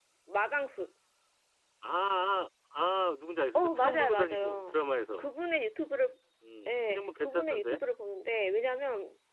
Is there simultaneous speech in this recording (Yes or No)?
Yes